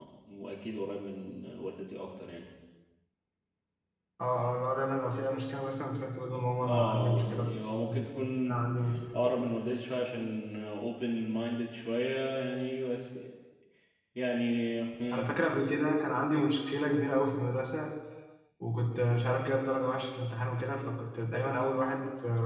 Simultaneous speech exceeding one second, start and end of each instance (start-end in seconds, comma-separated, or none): 6.7-8.0